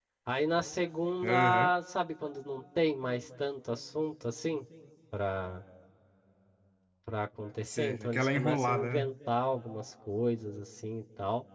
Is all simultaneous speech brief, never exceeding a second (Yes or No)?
No